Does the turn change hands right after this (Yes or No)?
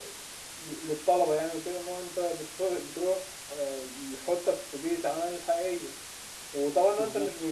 No